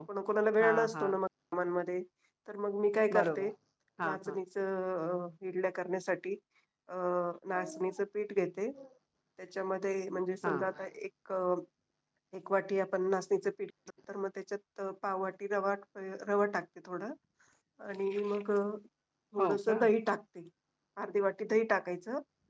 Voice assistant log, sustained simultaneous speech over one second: none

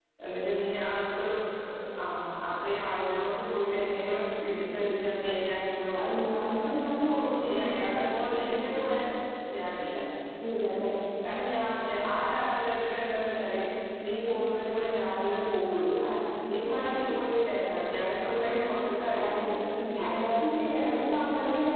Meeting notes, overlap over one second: none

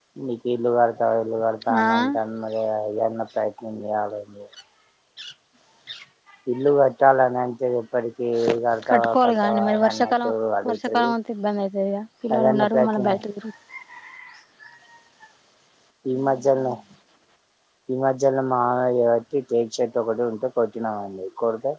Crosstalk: present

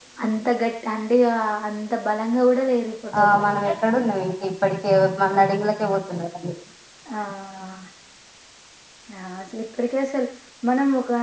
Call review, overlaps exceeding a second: none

